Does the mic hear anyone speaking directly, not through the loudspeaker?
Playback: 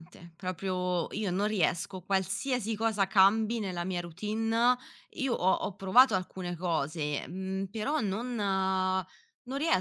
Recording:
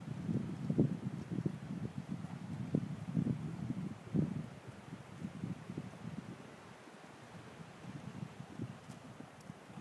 No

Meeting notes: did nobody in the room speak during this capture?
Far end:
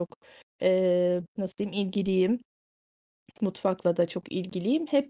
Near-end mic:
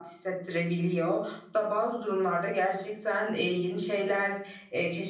No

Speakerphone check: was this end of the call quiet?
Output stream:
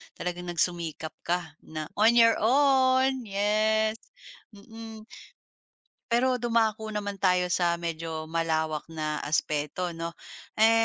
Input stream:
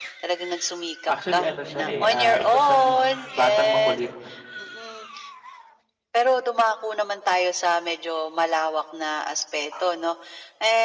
No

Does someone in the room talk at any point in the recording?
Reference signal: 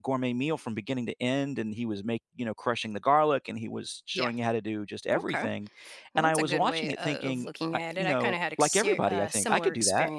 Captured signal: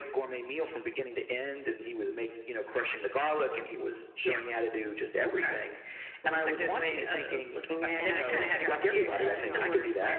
Yes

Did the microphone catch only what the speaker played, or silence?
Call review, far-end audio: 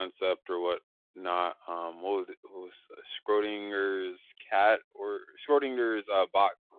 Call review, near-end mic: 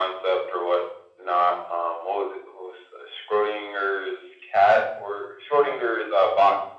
Yes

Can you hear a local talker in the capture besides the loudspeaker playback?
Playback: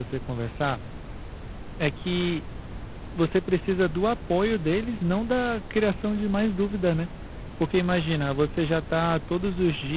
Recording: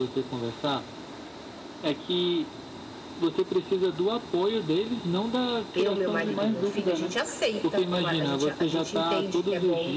Yes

